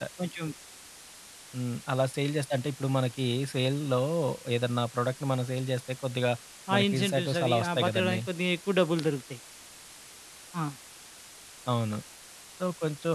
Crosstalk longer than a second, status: present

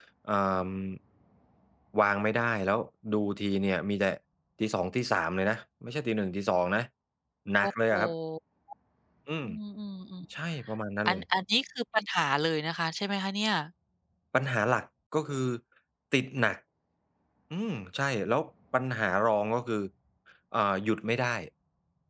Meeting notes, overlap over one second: none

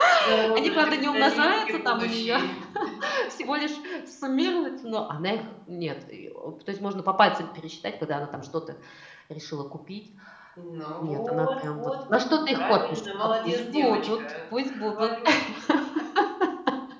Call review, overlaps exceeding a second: present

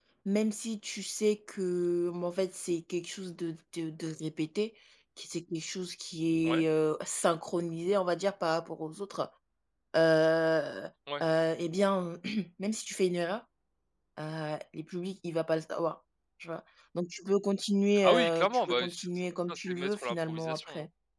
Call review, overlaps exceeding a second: present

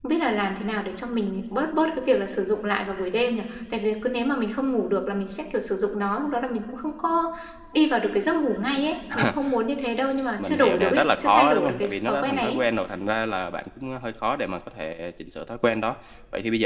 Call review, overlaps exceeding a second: present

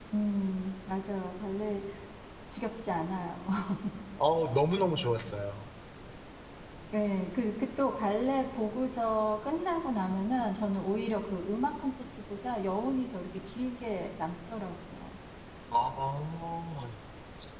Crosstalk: none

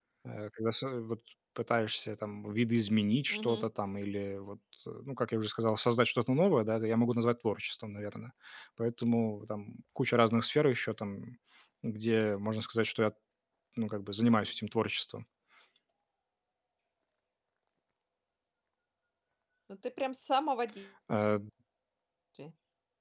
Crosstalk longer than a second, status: none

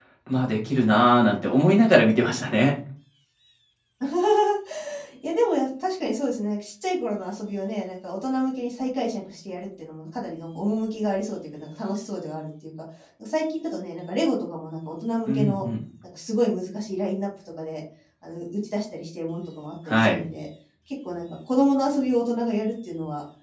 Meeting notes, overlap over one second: none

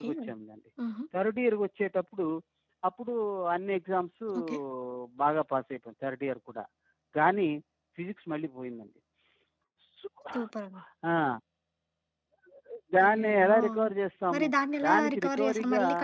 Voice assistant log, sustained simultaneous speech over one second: present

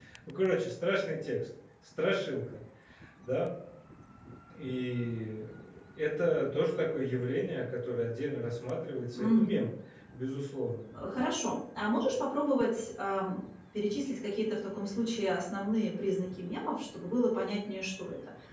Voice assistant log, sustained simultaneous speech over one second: none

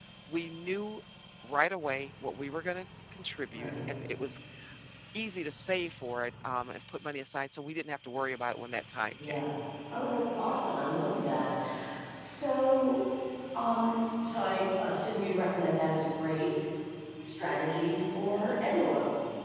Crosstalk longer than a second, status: none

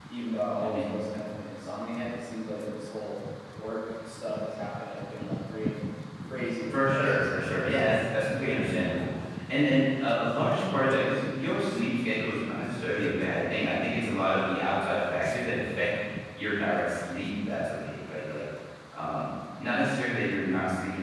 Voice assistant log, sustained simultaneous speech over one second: present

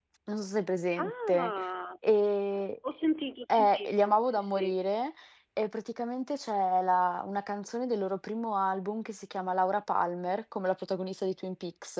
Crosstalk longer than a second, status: present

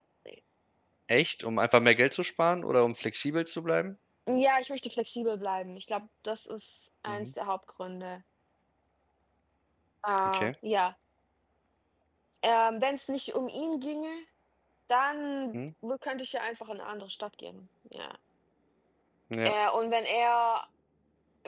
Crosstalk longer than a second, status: none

